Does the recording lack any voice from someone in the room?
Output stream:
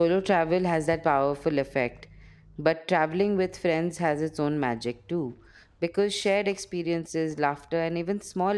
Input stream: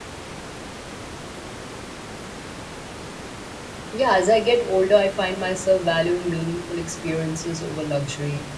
No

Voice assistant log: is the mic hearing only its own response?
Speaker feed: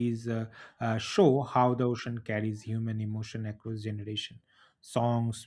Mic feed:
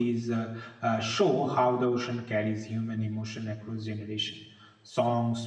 Yes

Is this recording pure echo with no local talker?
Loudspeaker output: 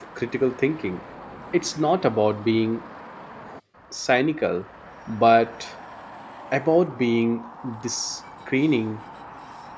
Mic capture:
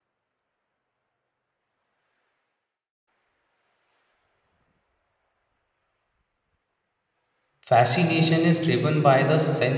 No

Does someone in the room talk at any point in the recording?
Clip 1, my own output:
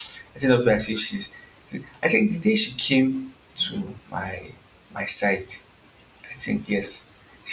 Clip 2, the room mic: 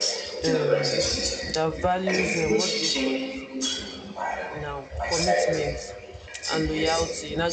Yes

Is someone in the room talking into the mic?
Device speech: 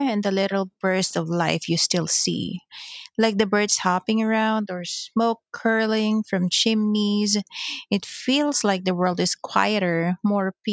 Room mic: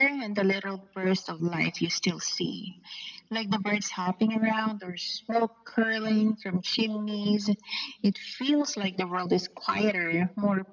No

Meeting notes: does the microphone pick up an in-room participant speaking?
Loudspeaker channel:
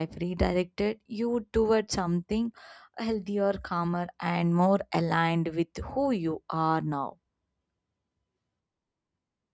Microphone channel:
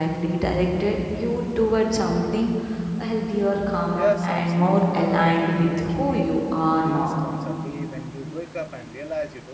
Yes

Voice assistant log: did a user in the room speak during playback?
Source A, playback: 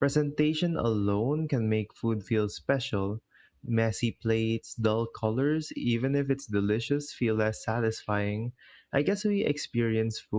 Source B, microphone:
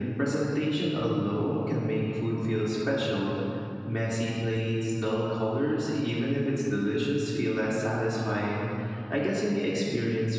No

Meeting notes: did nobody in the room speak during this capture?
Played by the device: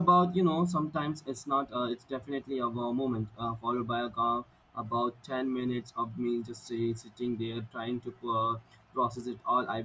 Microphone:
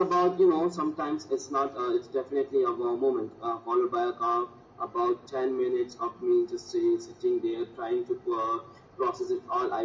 Yes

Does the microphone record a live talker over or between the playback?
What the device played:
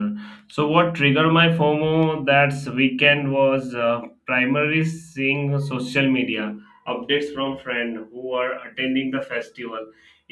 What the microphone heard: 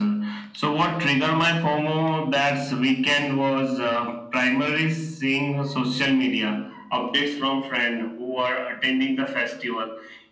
No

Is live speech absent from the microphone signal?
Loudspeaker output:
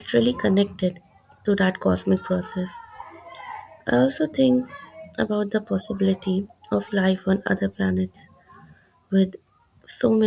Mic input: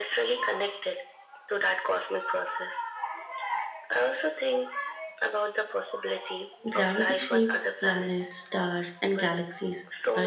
No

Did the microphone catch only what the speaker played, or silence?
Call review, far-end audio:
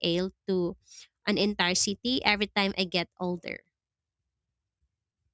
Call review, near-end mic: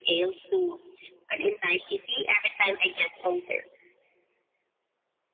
Yes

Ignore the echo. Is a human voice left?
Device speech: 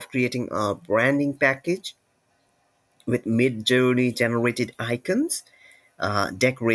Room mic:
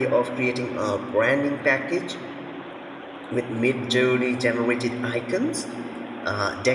No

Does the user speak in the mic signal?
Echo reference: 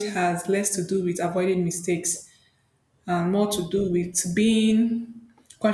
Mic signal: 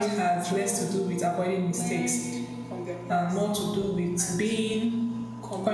Yes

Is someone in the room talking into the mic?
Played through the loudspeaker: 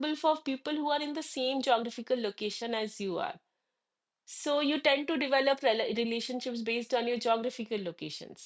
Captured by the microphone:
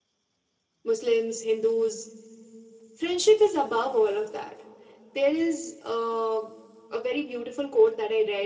Yes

